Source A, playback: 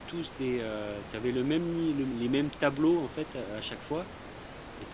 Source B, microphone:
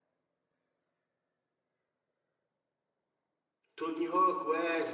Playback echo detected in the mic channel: No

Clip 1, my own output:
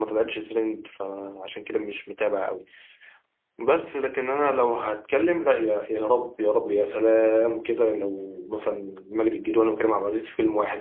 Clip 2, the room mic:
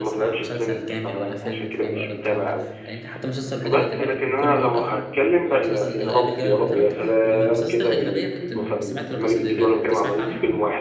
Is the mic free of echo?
No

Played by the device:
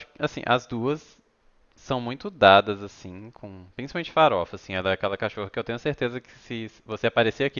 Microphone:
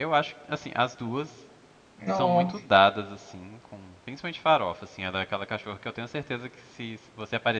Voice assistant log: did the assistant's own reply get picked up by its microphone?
Yes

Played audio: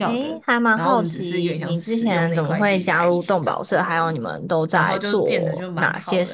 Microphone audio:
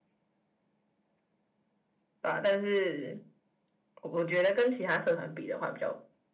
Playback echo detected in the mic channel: No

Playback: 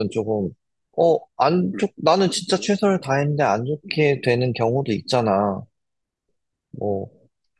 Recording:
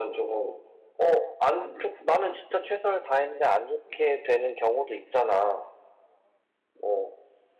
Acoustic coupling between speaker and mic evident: Yes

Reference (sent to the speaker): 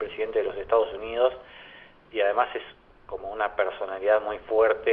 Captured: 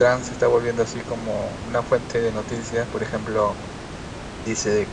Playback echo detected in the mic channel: No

